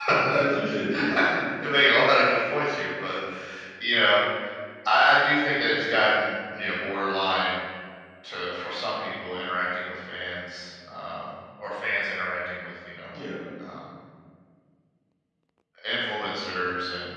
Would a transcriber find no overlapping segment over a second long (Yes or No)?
Yes